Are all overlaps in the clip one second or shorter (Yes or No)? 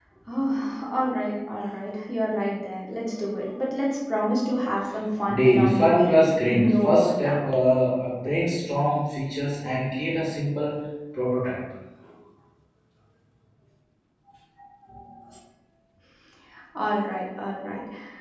No